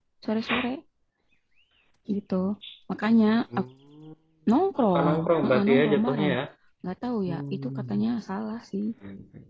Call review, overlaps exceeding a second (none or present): present